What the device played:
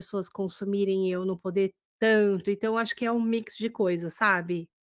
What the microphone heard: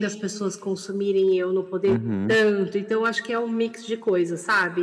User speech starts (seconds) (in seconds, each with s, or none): 1.9 s